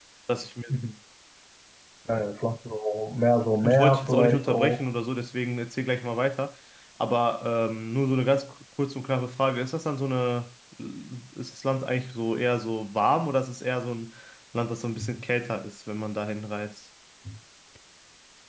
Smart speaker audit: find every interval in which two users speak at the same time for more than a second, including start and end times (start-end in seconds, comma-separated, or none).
3.6-4.9